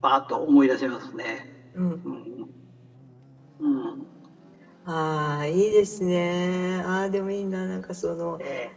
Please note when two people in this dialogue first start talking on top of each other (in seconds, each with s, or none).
none